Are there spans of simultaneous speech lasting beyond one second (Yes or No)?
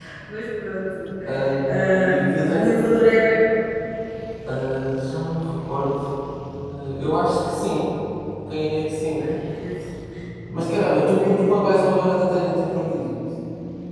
No